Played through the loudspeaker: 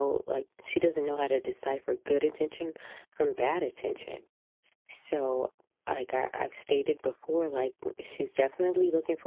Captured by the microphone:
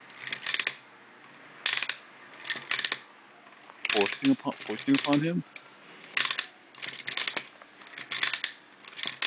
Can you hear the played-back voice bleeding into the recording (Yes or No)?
No